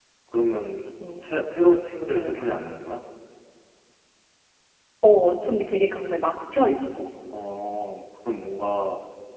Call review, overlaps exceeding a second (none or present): none